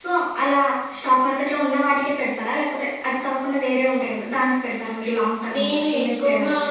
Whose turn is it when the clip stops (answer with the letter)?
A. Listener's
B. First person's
A